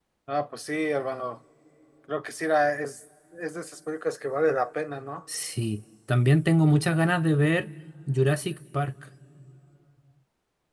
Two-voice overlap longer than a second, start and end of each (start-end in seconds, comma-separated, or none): none